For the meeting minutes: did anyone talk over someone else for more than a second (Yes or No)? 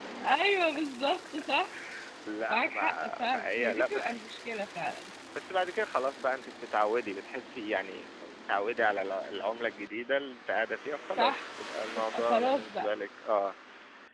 Yes